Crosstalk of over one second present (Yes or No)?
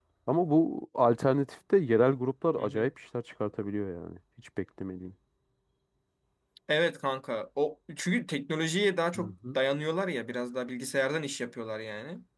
No